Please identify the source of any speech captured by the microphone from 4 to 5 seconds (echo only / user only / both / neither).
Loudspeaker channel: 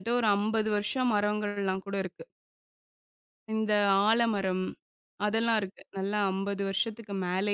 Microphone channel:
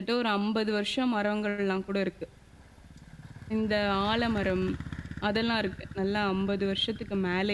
echo only